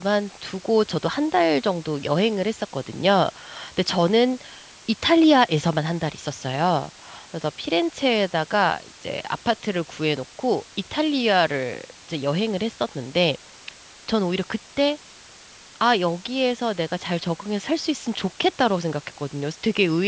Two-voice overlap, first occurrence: none

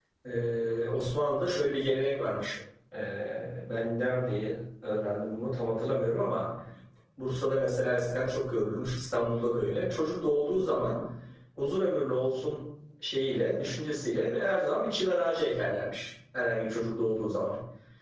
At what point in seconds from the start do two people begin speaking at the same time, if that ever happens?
none

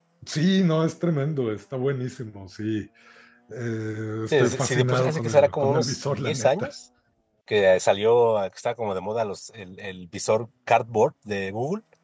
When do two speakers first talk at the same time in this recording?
4 s

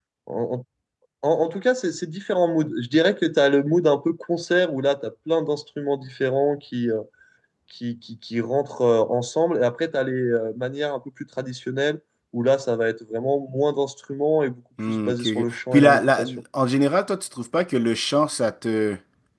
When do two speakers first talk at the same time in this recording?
15 s

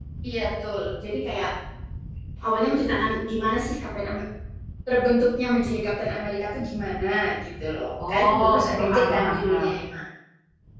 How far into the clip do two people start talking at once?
8 s

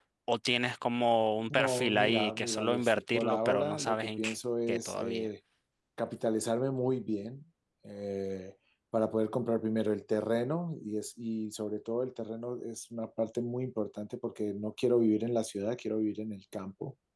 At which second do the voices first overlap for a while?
2 s

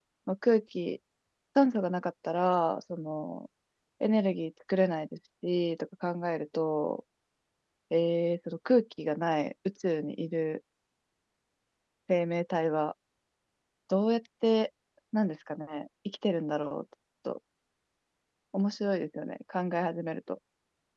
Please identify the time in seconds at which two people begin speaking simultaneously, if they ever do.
none

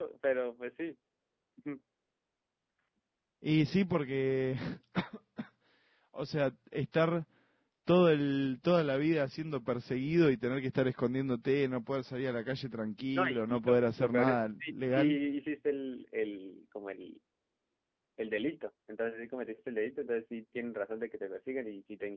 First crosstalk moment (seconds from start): 13 s

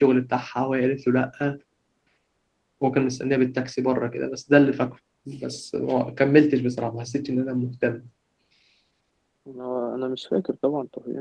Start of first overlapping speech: none

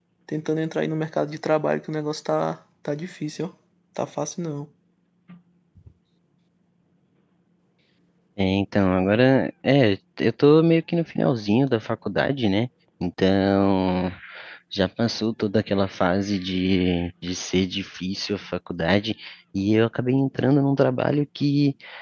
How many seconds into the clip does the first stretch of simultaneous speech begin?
none

